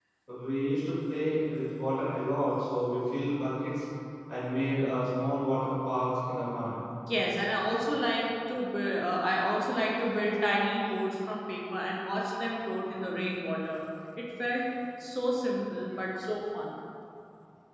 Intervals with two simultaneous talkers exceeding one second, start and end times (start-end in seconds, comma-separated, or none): none